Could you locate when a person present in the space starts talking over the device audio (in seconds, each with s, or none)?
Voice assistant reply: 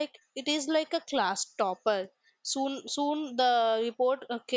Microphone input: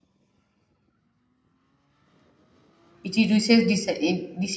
3.0 s